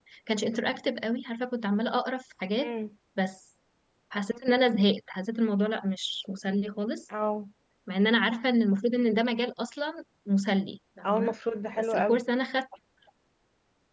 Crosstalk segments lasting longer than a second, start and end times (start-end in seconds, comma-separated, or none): none